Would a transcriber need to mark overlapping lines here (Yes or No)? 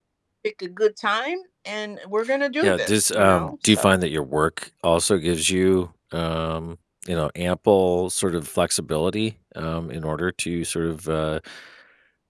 Yes